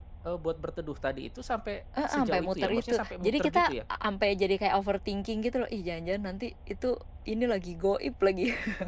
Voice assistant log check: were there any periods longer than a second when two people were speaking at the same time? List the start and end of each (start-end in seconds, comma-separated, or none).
2.1-3.7